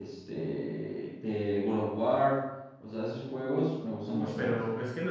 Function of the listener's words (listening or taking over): taking over